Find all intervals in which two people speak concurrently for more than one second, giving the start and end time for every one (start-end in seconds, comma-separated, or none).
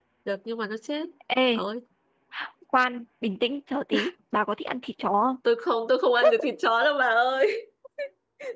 none